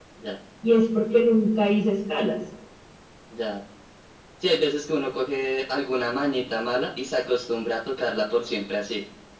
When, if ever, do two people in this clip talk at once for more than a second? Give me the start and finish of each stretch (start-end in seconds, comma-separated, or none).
none